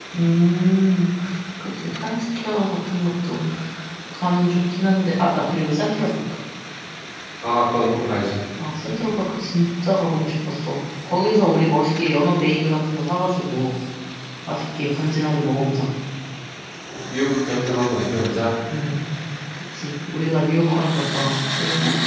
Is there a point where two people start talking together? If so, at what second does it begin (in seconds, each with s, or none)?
none